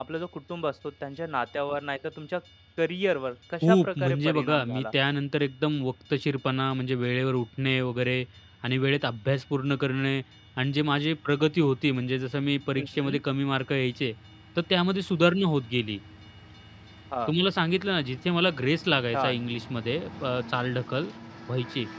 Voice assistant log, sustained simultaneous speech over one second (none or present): present